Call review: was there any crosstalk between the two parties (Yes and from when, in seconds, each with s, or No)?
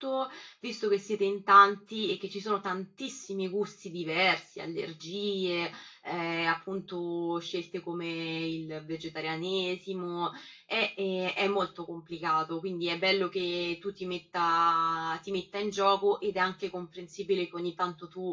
No